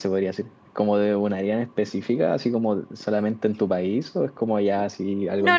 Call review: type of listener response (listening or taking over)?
taking over